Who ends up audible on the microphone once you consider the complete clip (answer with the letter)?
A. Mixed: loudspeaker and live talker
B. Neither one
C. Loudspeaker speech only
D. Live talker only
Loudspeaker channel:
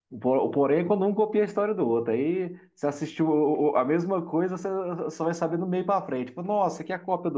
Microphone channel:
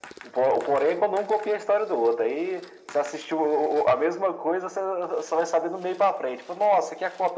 C